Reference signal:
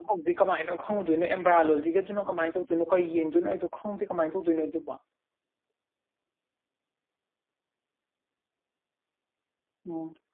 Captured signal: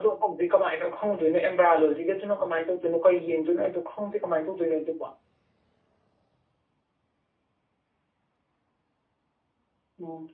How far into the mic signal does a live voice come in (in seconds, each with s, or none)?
none